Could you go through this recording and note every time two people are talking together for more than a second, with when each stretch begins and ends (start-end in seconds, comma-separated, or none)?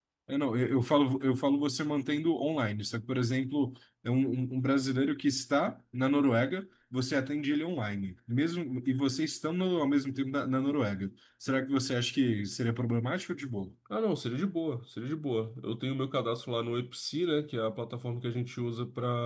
none